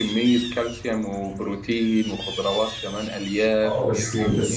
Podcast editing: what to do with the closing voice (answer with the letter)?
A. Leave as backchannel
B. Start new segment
B